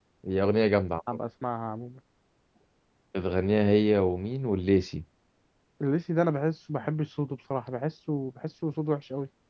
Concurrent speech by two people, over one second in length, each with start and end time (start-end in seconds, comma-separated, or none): none